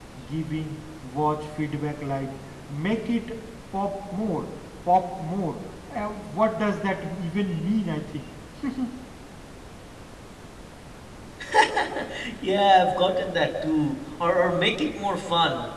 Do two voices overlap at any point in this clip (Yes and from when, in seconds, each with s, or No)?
No